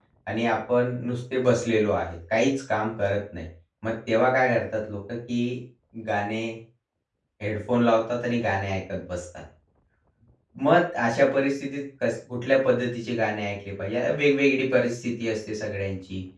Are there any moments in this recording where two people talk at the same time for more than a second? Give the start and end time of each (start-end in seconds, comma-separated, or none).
none